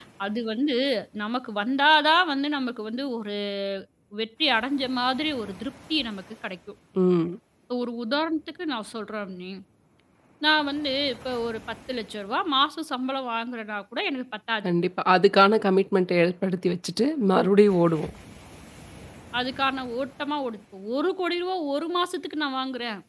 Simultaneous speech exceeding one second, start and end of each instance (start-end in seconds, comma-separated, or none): none